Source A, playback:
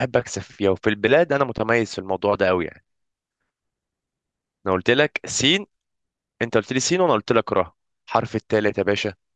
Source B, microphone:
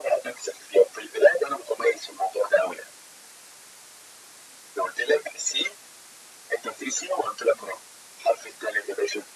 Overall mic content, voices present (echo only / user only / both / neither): echo only